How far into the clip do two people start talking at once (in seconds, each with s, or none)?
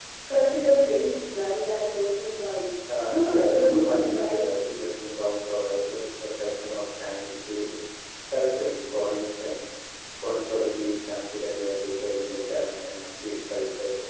3.1 s